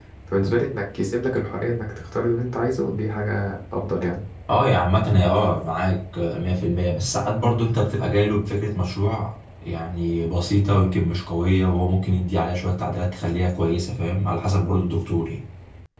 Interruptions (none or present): none